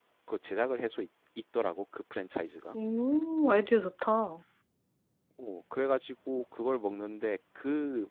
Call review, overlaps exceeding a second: none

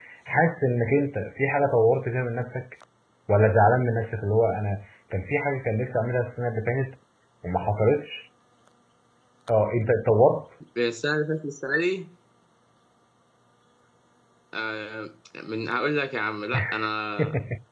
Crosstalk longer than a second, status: none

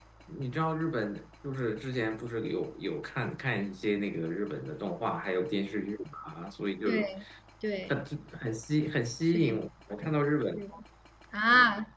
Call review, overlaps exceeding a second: none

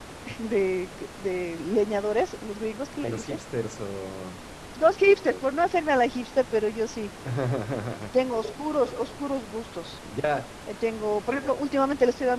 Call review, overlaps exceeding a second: none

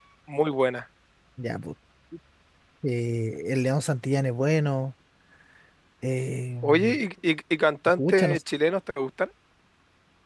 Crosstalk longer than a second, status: none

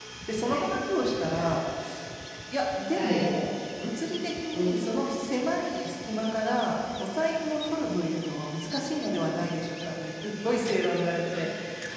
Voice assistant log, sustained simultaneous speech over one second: none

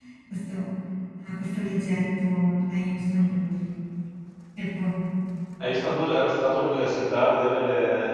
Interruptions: none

